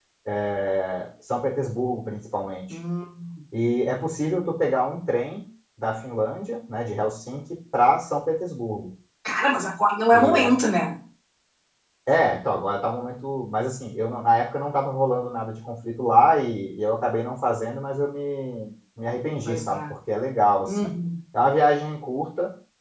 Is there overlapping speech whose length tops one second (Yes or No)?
No